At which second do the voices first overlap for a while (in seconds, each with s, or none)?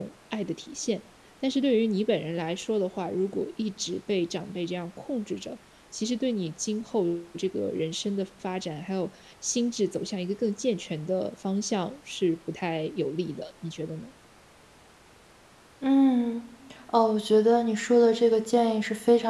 none